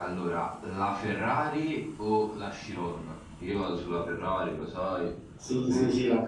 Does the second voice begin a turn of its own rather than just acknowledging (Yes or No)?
Yes